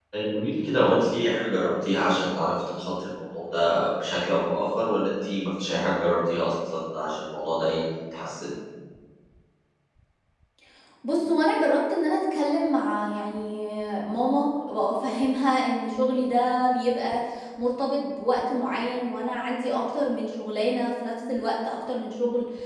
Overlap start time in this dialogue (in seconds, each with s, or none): none